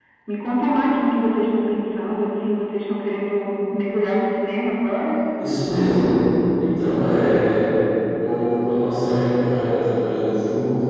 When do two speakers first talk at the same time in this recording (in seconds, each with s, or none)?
none